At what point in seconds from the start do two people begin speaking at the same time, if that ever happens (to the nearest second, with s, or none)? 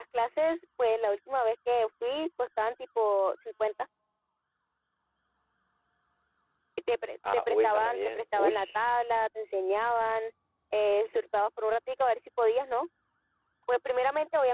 7 s